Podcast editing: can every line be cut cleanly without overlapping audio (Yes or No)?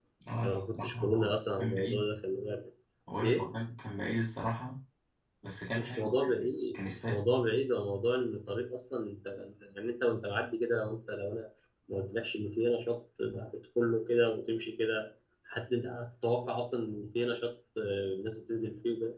No